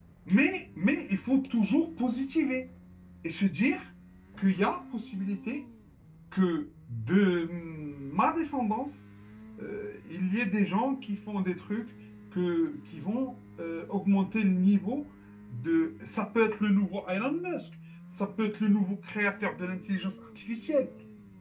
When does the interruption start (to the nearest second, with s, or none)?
none